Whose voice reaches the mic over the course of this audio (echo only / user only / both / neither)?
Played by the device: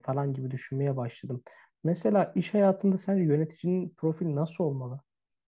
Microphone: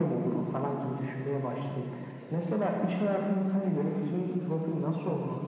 echo only